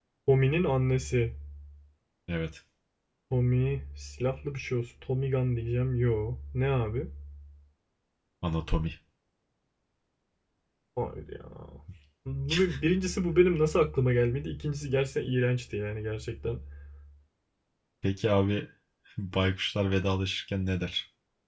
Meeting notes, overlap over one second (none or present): none